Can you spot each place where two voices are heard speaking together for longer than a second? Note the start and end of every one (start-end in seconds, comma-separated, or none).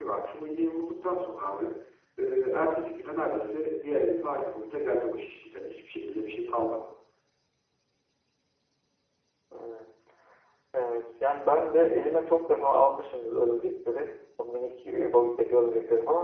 none